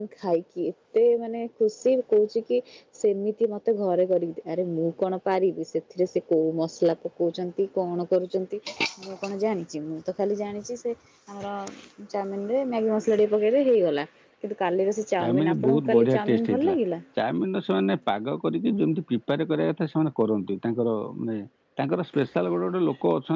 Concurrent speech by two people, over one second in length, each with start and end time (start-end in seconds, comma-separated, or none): 15.2-16.8